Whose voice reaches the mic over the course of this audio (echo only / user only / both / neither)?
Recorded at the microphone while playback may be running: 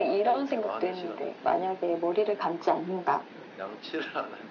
echo only